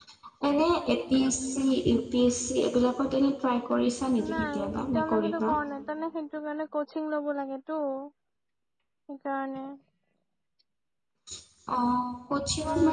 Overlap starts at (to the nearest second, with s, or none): 4 s